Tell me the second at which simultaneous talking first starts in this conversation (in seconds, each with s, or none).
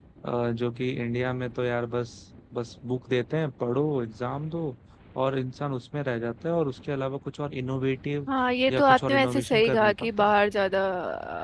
8.7 s